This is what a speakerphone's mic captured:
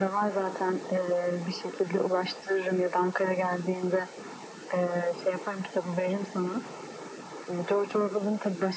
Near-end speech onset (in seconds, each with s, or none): none